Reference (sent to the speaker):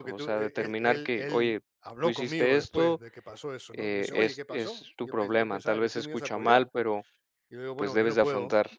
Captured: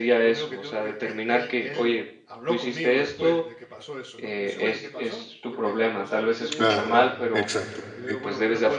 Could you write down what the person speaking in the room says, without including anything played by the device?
claro, exacto, sí,

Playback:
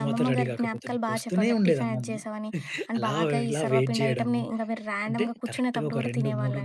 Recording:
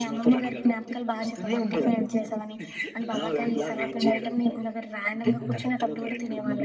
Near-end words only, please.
హ్మ్.

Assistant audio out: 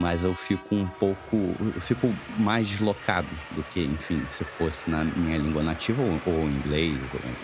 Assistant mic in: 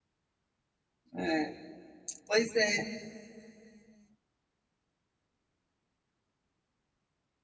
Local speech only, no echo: É. Pois é,

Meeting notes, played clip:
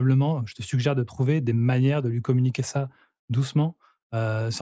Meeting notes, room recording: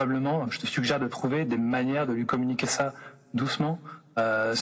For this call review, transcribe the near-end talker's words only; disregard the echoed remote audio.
none

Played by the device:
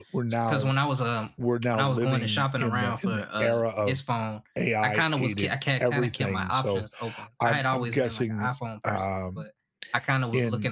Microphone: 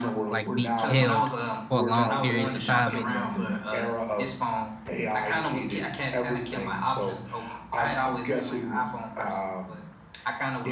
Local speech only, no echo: like be killed for long periods of time anymore.

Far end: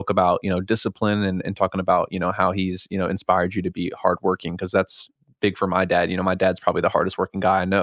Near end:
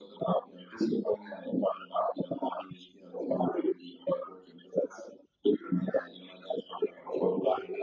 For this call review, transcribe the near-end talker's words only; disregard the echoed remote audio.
none

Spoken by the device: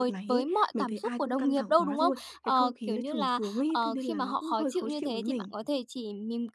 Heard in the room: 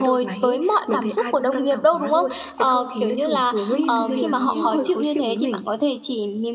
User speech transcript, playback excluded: ừm, mình hiểu.

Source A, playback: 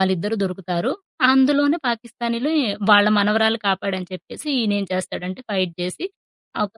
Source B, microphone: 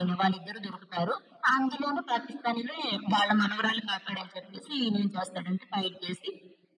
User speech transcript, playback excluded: none

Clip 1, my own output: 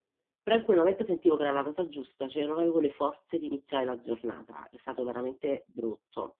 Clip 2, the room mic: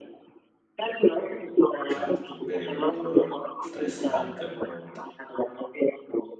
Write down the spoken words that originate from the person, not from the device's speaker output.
Certo, un periodo bello stressante appunto.

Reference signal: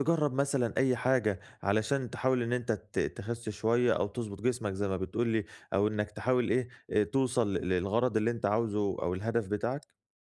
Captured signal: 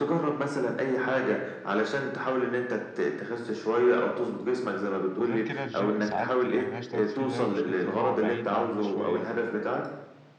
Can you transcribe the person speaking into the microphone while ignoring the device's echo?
وغير كده الgym ساعات يعني اللي أنا اشتركت فيه ده مشكلته إن هو بعيد عني شوية،

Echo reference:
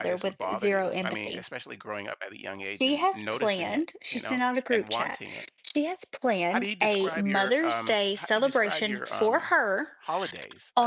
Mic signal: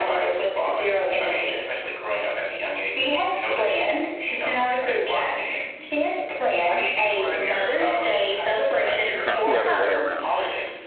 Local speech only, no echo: not the other way around.

